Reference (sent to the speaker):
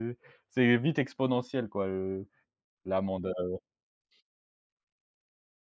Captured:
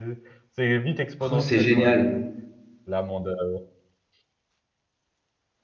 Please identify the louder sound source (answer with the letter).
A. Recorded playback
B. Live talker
B